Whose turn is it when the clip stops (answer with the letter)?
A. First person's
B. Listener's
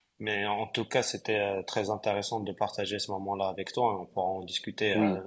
B